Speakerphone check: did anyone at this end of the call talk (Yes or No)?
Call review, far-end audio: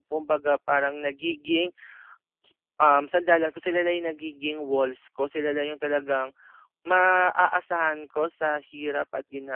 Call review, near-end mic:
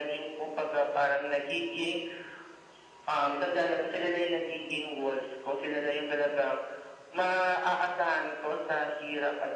No